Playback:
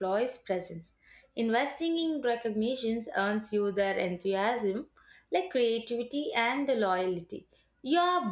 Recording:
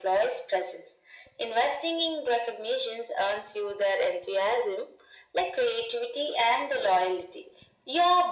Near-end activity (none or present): none